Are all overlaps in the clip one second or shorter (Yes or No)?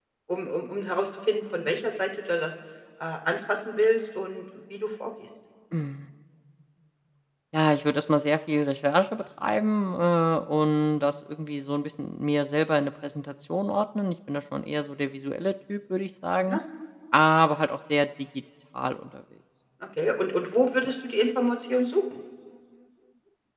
Yes